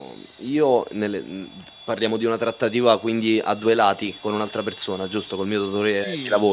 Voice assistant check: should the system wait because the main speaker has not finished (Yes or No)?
No